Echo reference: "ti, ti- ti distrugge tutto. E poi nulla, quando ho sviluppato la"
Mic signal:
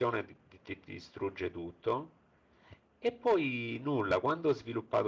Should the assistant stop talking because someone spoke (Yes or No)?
No